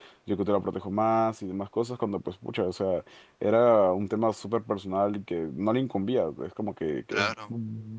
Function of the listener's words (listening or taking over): listening